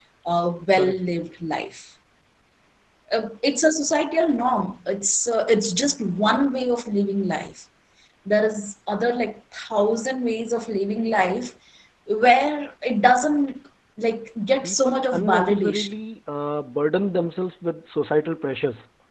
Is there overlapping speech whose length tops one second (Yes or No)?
Yes